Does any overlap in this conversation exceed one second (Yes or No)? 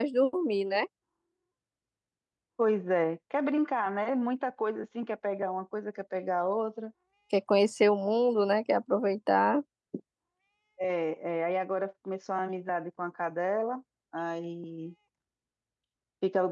No